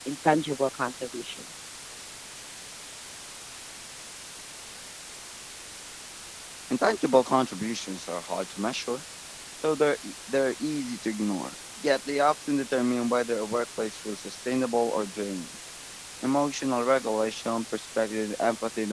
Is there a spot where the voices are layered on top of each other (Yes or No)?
No